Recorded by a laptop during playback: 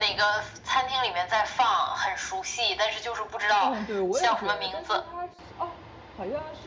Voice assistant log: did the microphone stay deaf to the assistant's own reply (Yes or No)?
No